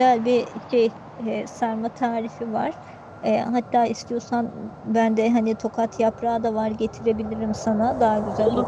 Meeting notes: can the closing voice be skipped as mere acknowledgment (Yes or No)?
No